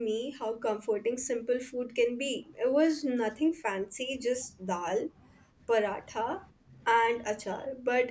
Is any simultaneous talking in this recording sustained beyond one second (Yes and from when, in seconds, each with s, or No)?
No